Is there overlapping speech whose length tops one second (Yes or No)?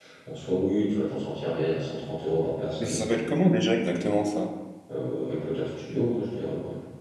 No